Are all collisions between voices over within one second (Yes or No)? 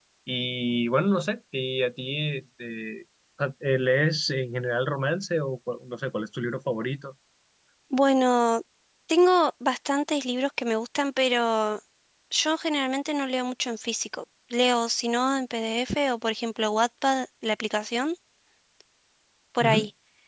Yes